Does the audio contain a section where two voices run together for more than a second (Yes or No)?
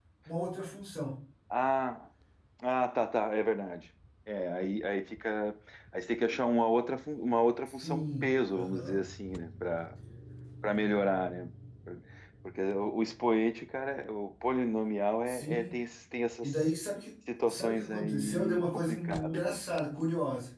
Yes